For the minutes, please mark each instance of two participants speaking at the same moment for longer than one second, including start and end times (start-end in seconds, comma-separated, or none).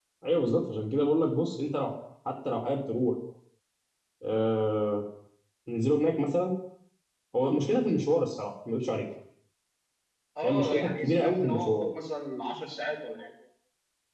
10.4-11.8